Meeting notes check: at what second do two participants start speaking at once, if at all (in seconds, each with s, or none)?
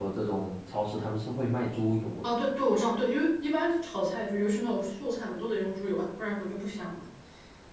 none